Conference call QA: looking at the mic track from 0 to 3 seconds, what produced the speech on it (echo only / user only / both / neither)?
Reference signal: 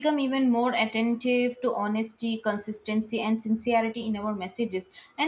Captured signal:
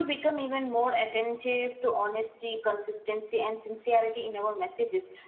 echo only